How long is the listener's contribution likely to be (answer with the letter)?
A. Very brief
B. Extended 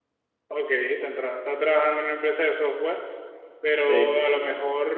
A